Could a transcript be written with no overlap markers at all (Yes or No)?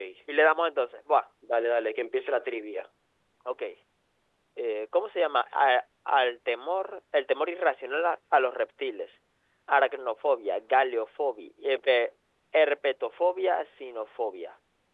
Yes